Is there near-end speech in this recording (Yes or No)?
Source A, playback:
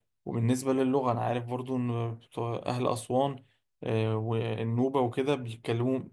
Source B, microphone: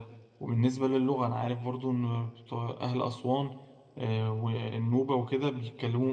No